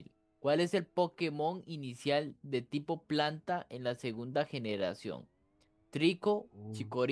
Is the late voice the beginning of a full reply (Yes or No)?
No